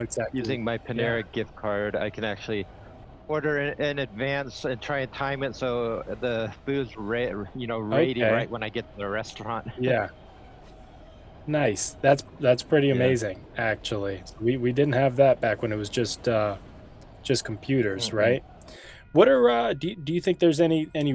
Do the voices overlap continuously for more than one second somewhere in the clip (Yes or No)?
No